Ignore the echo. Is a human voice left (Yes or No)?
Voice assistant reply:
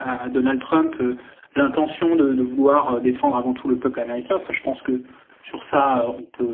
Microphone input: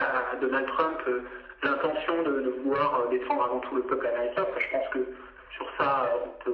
No